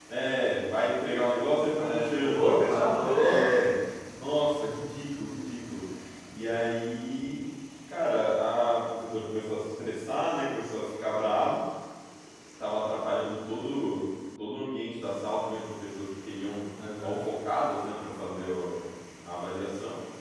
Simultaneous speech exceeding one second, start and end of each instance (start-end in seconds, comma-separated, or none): 1.8-3.5